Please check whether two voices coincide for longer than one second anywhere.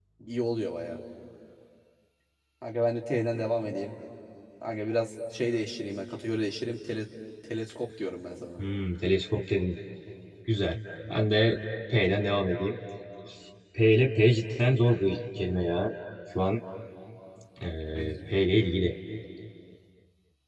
No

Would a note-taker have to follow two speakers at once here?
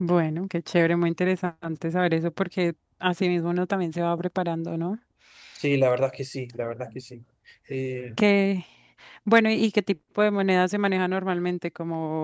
No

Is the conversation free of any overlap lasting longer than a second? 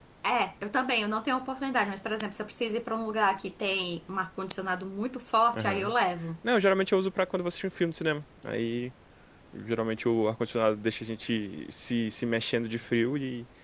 Yes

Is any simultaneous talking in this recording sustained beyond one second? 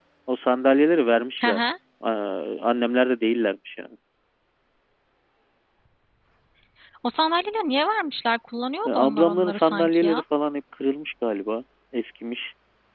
Yes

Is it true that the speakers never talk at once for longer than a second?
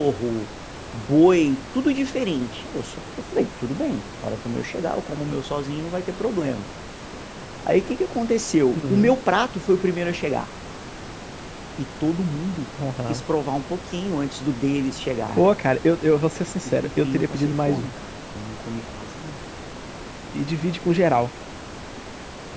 No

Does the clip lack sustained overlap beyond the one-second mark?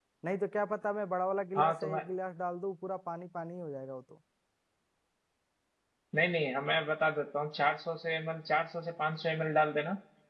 Yes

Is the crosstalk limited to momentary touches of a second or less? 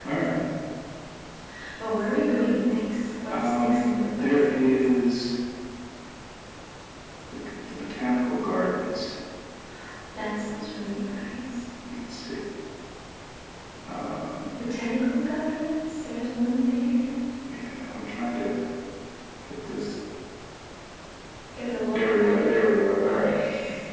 No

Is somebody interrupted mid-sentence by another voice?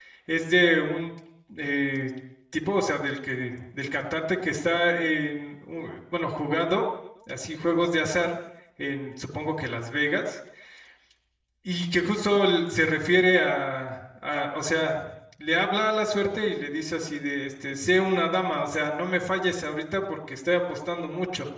No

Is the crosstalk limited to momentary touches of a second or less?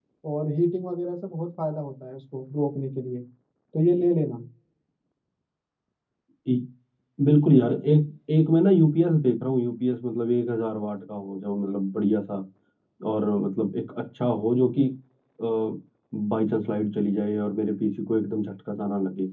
Yes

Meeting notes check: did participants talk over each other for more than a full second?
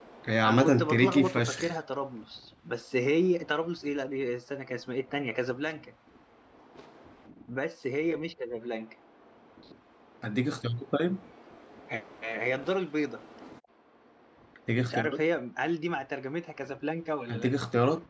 Yes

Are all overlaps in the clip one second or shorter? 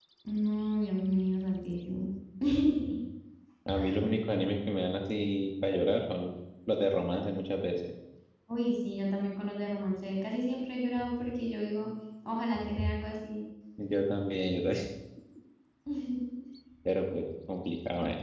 Yes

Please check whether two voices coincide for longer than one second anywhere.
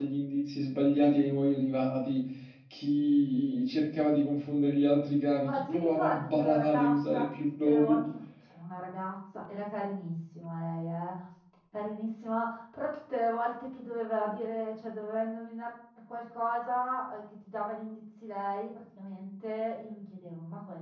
Yes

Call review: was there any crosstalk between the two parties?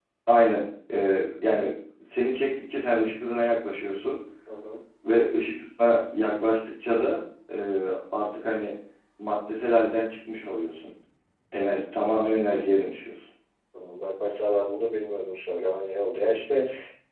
No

